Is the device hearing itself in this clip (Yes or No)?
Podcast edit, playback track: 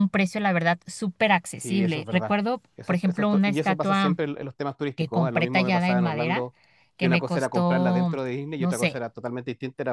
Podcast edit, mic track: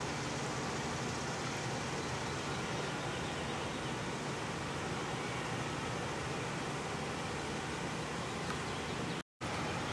No